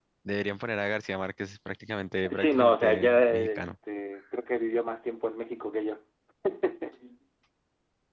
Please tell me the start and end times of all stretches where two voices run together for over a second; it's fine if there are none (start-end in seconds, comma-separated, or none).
2.3-3.6